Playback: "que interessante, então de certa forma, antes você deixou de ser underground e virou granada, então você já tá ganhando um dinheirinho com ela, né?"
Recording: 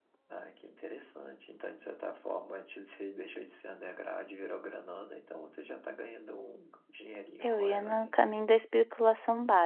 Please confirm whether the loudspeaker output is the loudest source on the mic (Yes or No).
No